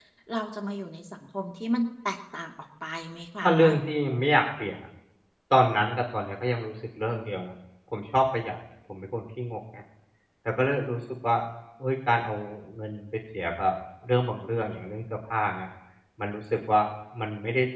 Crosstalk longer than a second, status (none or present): none